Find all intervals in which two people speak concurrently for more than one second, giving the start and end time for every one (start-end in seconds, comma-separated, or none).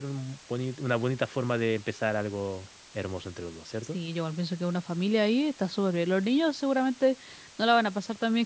none